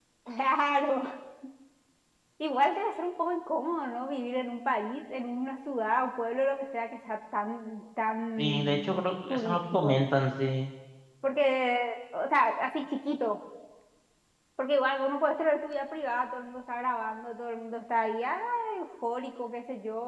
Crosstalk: present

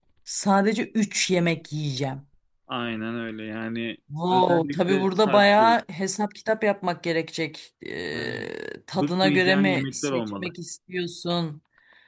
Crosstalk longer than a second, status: present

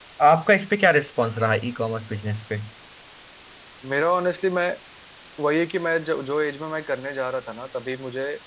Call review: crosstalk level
none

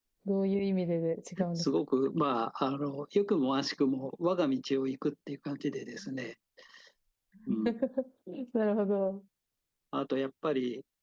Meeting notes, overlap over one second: none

